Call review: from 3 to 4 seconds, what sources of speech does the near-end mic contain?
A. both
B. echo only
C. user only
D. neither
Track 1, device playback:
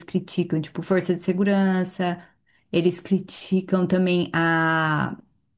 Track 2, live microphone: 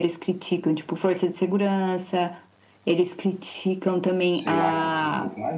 B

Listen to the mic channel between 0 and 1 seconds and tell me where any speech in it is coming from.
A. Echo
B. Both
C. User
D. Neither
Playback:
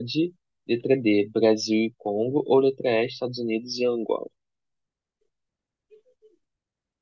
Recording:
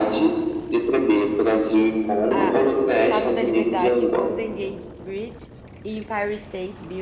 A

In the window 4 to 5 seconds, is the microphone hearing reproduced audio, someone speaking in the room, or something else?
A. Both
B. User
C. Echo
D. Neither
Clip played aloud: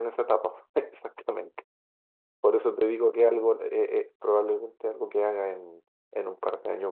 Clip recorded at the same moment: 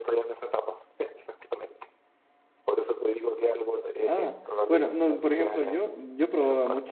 A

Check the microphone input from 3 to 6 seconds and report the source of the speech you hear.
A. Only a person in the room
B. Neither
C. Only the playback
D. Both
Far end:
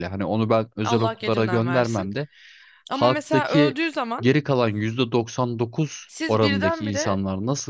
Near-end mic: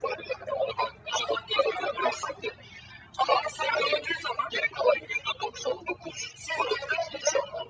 C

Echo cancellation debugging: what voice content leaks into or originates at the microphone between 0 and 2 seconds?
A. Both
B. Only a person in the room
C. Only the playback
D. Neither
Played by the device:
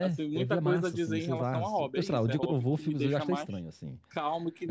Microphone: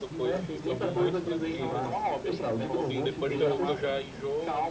A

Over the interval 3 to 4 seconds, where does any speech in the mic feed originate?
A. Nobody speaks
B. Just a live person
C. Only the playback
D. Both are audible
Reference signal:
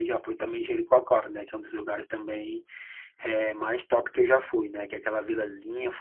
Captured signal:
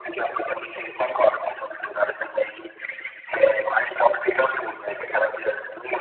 C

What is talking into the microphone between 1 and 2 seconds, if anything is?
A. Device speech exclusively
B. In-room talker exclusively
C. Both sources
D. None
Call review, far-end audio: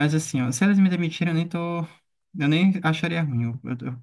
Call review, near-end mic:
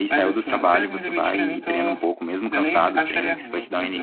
C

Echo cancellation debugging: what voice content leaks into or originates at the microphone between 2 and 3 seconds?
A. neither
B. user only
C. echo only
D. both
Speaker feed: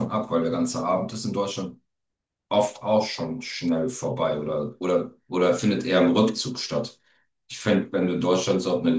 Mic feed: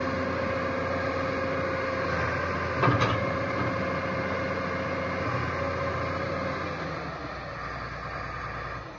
A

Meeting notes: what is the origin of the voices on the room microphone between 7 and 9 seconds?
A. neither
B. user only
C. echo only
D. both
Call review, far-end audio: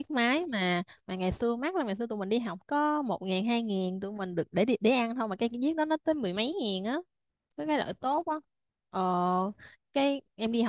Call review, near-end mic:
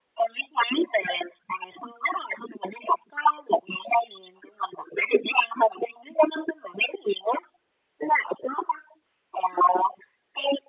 C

